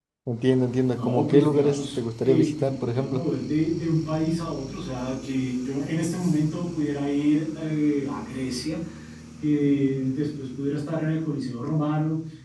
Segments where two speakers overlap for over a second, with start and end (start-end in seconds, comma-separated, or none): 0.9-3.3